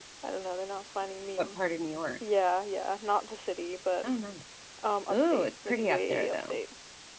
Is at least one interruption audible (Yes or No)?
Yes